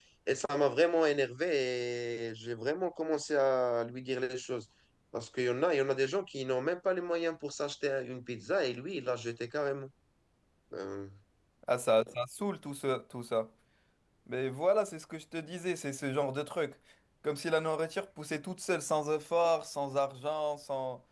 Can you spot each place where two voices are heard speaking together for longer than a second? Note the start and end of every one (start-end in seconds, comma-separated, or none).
none